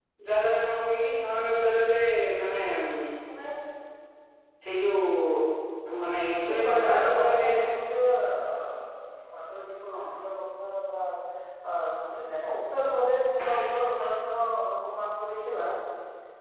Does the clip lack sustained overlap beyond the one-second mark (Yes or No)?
No